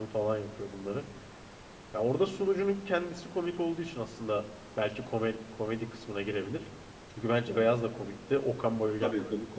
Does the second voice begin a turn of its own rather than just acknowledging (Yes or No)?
Yes